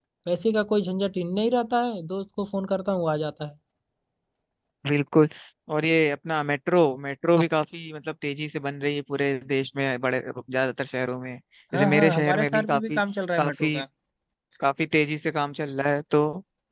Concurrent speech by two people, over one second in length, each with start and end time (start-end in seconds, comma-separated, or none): 11.7-13.0